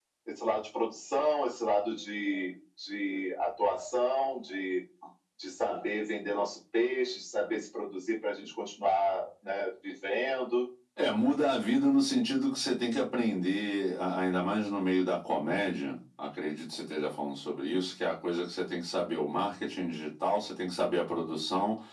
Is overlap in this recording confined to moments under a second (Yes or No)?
Yes